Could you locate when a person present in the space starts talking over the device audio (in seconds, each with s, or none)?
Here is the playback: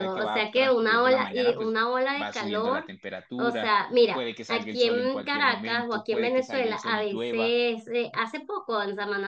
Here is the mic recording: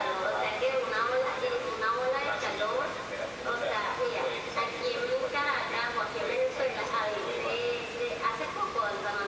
none